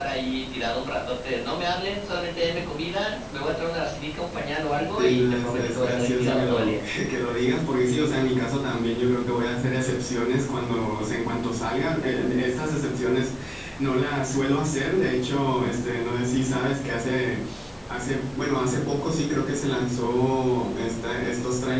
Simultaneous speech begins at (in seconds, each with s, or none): 5.0 s